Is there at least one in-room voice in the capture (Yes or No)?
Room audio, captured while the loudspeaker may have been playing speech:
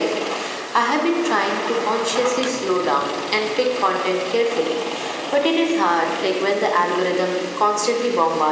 No